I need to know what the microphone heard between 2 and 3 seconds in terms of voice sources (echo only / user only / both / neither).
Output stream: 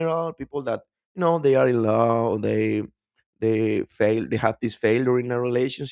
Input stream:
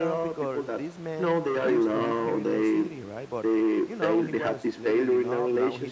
both